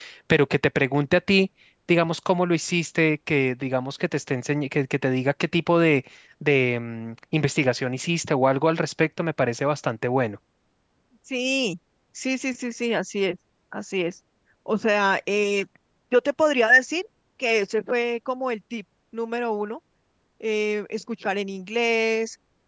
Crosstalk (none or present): none